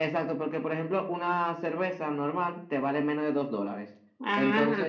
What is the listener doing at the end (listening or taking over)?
listening